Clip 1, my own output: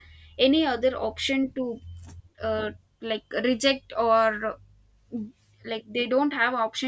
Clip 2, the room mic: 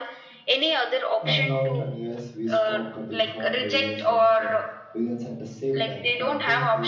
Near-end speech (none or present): present